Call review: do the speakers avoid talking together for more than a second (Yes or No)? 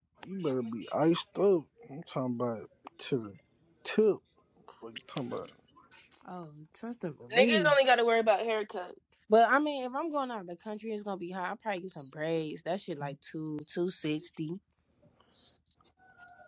Yes